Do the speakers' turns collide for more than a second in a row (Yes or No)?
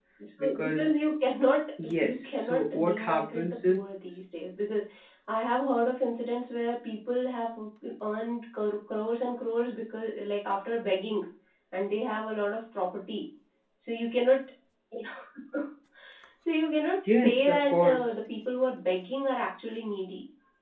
Yes